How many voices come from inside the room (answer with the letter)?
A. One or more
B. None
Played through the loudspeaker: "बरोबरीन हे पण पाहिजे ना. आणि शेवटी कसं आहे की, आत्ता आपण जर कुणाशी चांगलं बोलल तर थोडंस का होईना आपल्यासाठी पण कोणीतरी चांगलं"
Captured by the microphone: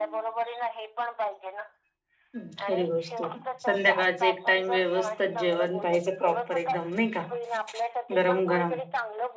A